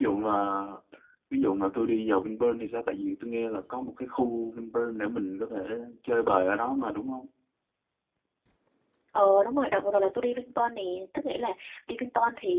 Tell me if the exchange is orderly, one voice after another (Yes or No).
Yes